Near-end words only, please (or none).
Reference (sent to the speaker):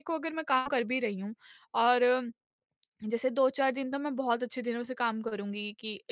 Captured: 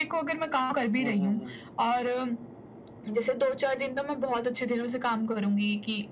हुँ, हुँ, हुँ।